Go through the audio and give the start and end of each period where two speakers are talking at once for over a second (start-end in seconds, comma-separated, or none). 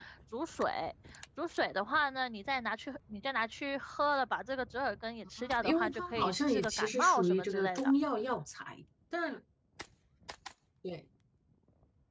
5.4-7.9